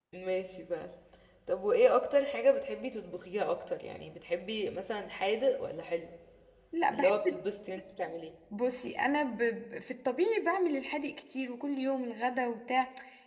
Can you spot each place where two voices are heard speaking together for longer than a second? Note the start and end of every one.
none

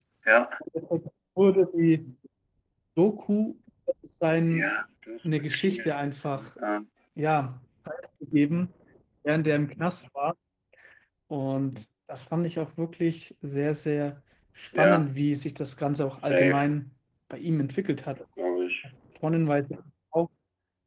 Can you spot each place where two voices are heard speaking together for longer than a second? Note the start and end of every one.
5.2-6.5

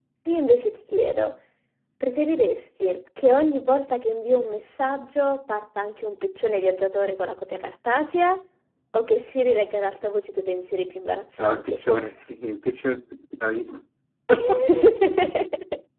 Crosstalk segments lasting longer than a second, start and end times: none

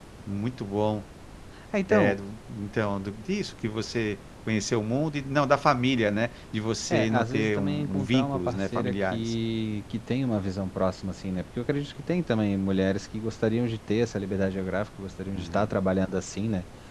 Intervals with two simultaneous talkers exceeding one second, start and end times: 6.9-9.3

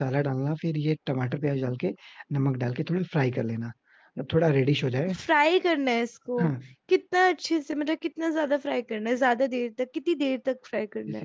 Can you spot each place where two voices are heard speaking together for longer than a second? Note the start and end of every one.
none

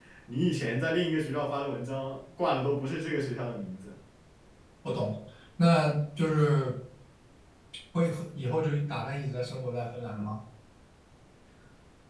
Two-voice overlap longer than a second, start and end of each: none

